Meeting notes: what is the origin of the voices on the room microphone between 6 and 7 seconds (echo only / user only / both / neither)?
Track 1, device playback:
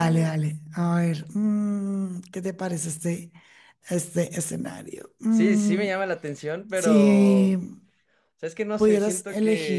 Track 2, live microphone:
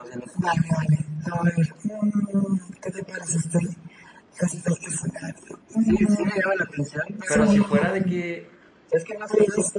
echo only